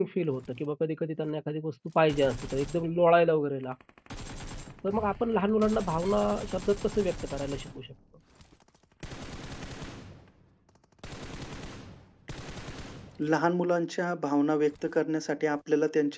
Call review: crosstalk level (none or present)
none